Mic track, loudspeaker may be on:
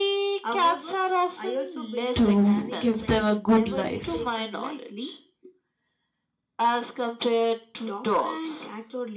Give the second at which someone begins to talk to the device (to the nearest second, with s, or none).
2 s